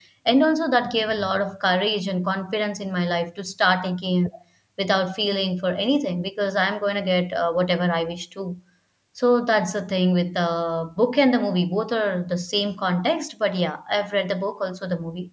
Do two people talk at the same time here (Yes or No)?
No